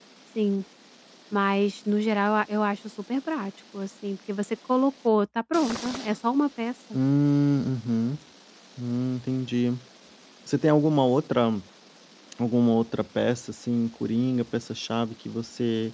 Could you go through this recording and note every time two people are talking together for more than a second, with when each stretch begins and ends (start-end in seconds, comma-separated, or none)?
none